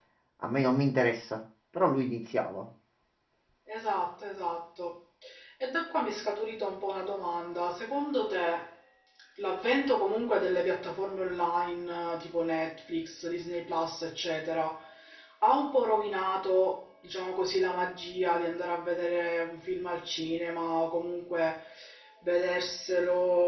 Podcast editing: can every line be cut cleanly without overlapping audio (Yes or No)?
Yes